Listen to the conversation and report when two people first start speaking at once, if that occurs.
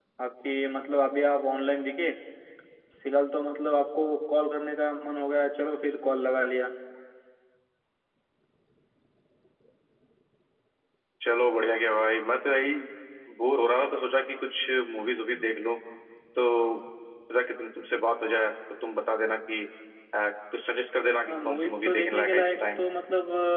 21.3 s

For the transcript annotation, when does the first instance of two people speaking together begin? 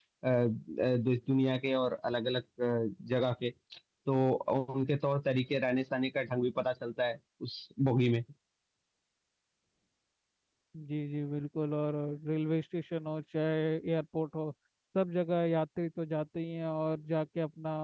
none

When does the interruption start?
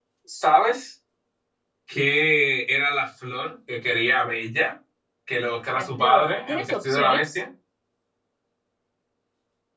5.8 s

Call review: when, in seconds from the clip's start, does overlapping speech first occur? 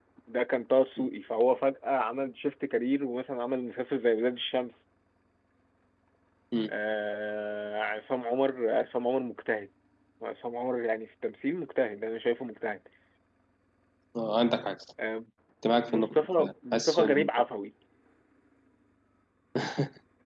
15.9 s

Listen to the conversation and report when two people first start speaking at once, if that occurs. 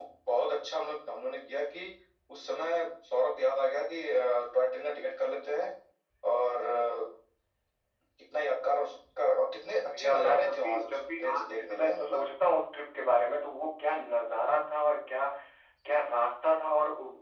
9.8 s

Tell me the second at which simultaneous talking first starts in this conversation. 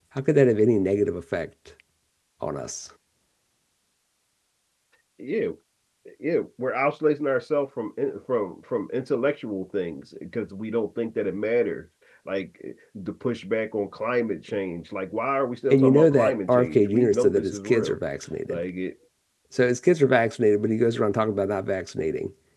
15.7 s

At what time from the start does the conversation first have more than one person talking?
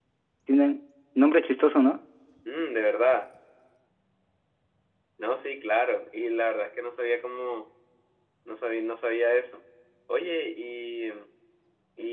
none

